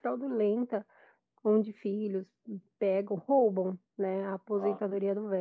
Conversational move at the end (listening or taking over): listening